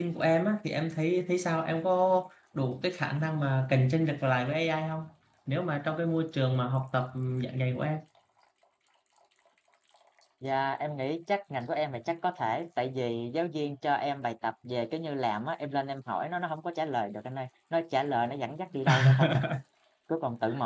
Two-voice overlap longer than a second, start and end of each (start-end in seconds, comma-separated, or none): none